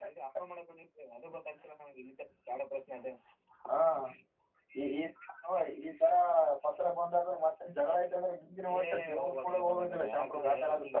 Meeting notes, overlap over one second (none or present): present